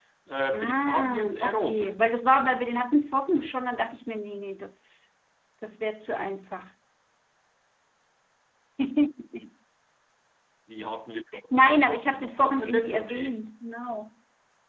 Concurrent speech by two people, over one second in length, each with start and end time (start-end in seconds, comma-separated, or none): 0.5-1.9, 11.8-13.4